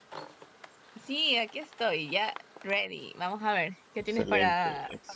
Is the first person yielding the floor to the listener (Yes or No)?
Yes